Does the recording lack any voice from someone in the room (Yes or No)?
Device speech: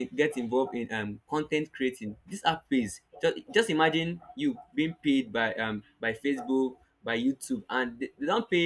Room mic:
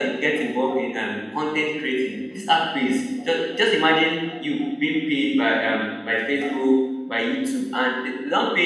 Yes